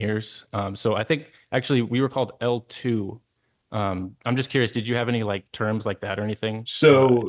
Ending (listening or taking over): taking over